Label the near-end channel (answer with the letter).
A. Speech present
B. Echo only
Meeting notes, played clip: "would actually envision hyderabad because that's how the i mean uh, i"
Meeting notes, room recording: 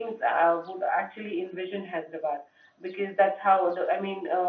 B